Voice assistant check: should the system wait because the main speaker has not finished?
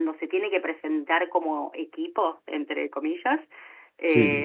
Yes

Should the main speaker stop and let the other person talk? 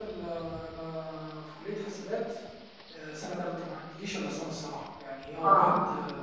No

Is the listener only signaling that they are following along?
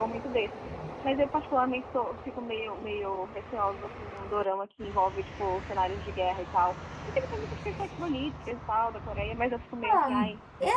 No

